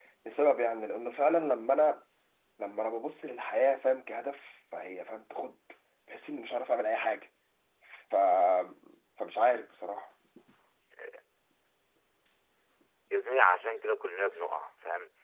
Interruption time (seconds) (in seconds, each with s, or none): none